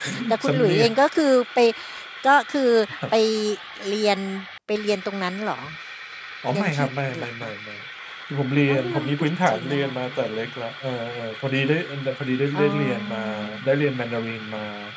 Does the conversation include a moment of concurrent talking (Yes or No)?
Yes